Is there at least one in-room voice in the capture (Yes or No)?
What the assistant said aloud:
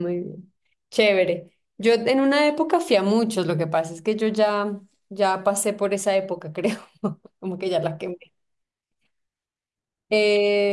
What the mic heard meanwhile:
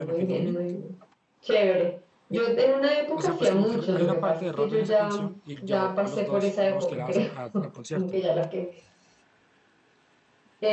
Yes